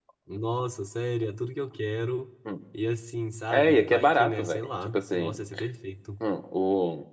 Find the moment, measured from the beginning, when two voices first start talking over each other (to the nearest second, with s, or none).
4 s